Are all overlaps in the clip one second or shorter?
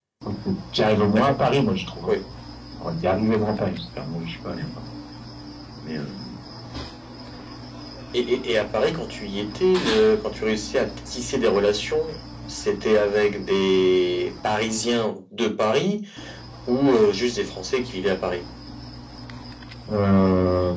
Yes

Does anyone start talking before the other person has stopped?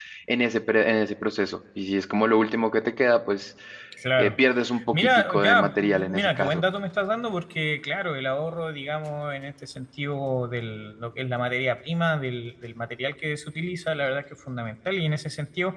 Yes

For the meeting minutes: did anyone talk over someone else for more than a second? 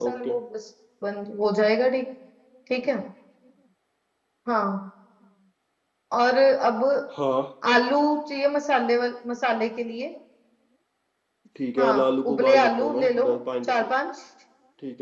Yes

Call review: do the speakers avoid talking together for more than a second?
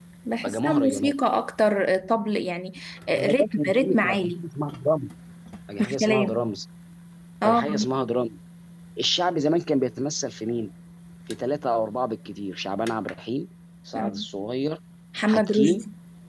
No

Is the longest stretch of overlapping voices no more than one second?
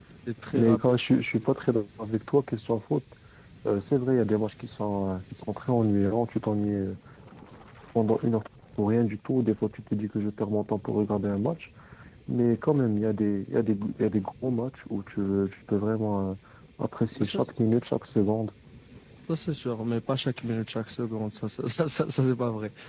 Yes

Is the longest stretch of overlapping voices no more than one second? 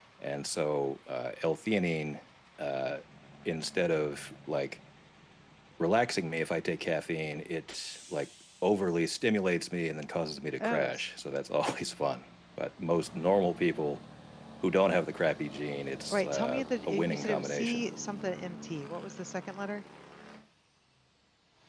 No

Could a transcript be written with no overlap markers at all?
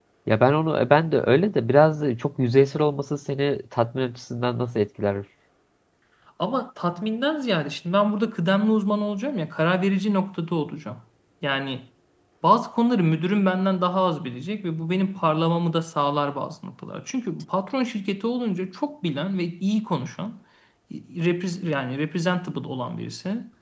Yes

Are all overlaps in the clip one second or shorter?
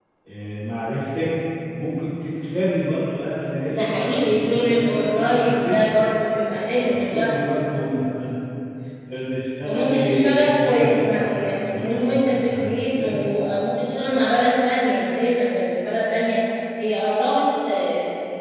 No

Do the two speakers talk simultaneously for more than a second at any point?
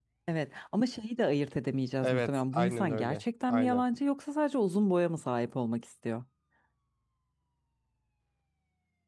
Yes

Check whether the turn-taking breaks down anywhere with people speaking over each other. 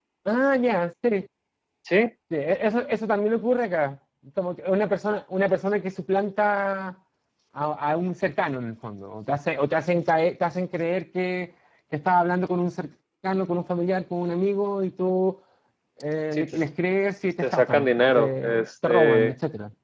Yes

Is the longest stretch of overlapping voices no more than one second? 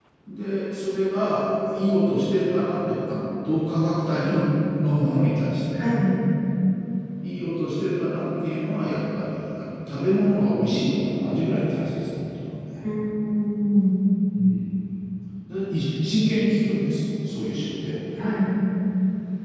Yes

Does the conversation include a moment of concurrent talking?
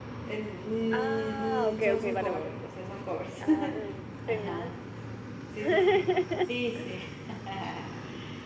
Yes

